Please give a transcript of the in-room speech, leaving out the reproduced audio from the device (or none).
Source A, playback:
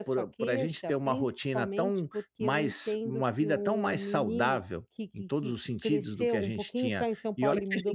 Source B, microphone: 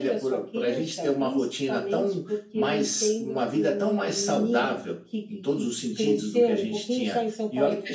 none